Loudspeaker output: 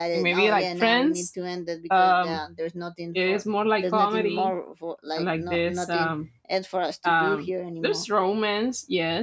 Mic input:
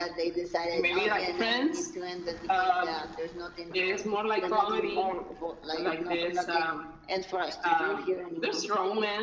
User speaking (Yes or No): No